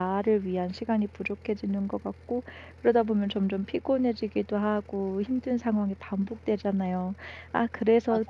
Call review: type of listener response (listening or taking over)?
listening